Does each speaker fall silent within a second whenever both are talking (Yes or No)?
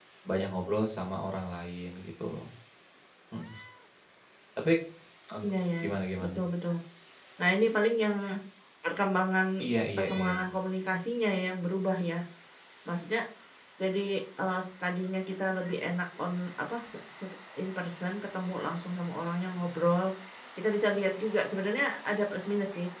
Yes